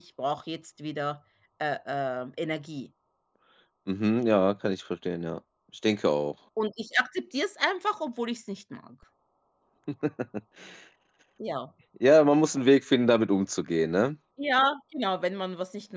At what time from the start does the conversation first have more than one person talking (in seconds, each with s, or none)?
none